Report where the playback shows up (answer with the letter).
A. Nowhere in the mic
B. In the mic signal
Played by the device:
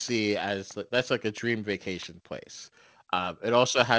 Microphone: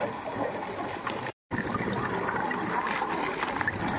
A